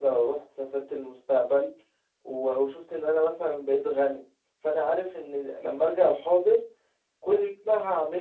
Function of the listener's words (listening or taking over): listening